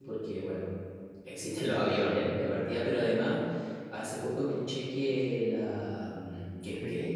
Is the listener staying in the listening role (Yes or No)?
Yes